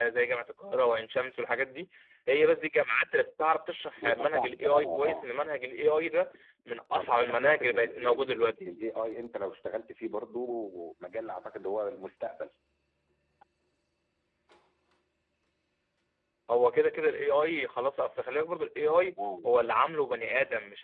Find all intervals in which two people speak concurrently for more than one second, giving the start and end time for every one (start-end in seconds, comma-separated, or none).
4.0-5.2, 6.9-8.7